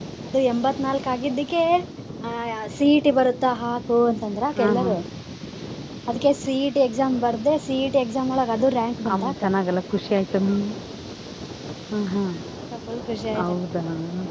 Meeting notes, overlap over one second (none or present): none